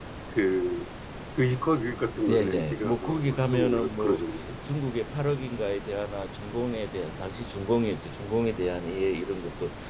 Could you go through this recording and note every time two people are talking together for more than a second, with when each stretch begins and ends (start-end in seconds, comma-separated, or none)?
2.3-4.2